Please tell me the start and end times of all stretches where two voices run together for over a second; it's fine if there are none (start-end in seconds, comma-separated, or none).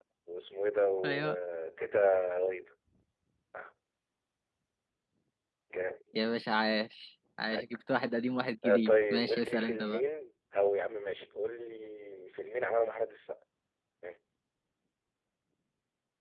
8.7-10.0